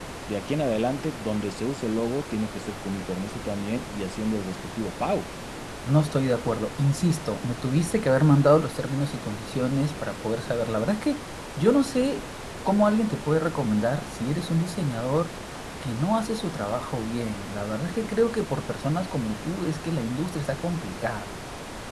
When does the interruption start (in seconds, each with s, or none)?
none